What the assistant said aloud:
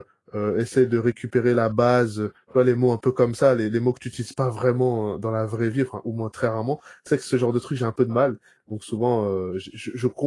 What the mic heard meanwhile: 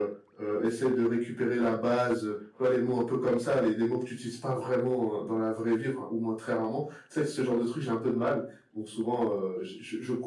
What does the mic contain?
echo only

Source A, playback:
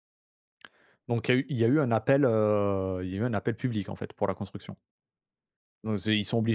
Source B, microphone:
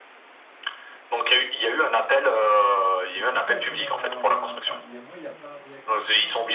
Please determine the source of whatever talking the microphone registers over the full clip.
both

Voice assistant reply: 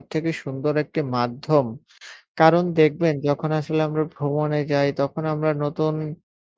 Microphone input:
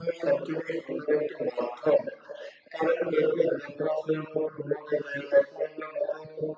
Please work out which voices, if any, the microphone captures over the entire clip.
echo only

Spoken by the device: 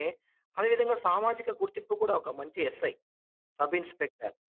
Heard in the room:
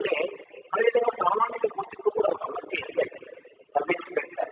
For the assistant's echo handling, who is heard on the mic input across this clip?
echo only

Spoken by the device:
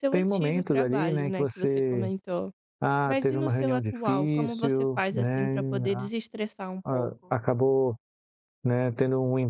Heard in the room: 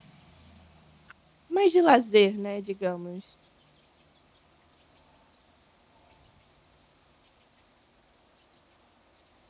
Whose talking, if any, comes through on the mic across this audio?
user only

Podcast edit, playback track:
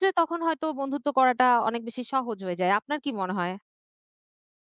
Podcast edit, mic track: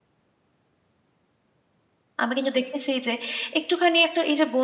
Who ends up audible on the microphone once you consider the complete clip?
user only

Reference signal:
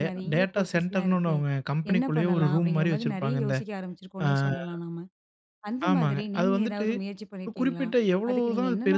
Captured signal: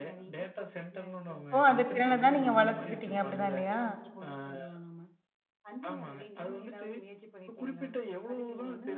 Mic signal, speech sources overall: both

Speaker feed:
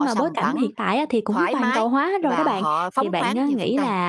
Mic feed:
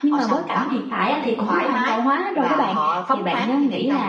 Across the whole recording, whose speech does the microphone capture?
echo only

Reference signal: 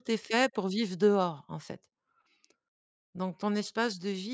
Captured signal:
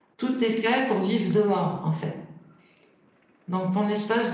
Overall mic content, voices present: echo only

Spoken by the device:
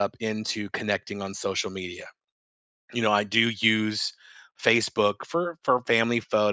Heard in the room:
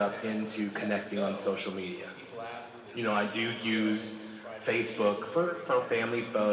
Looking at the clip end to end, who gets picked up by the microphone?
both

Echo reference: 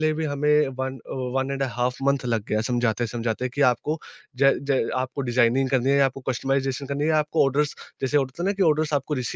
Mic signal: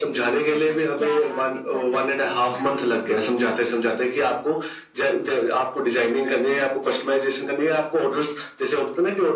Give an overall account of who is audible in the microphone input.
both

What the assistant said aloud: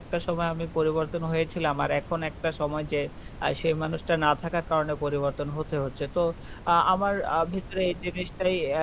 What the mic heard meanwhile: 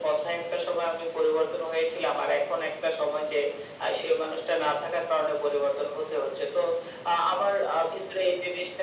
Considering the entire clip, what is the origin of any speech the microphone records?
echo only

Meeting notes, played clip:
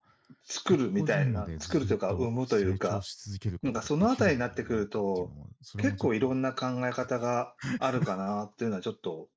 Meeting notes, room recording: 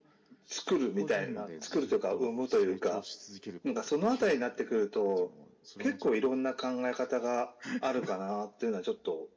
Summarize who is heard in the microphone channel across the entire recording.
echo only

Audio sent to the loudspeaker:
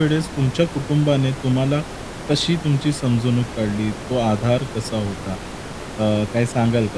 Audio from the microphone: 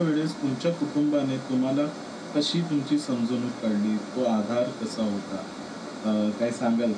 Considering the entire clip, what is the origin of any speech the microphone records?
echo only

